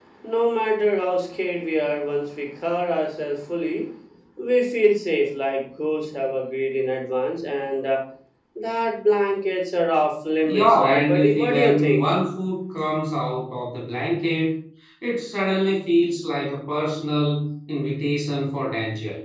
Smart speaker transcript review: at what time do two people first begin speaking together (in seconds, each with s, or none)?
10.4 s